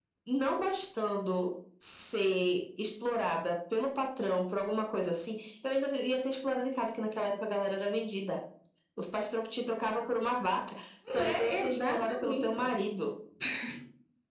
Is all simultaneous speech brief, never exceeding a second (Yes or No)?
No